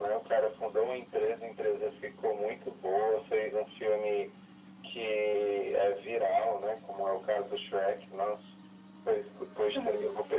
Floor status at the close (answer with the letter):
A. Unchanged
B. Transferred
A